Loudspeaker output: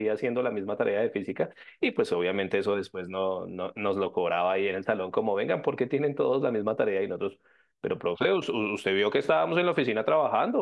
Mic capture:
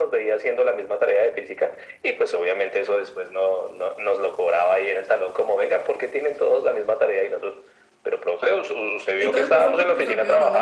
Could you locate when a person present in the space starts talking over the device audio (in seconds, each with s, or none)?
9.2 s